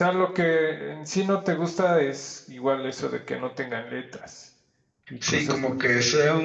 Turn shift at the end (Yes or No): Yes